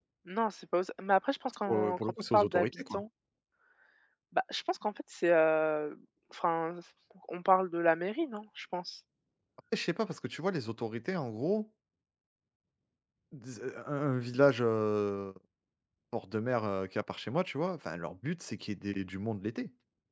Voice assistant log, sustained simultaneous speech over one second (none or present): present